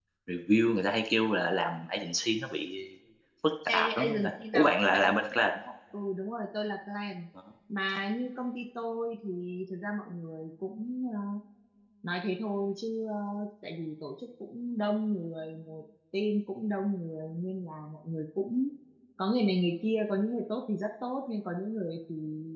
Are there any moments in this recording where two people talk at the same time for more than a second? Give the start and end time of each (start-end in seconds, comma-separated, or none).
3.7-5.2